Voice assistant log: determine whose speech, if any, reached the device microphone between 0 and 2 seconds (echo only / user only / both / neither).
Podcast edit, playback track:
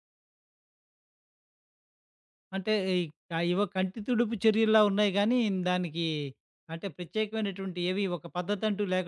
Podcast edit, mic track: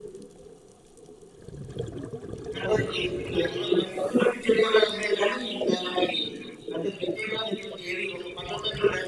neither